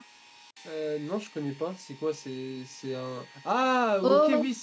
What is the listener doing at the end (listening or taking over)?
listening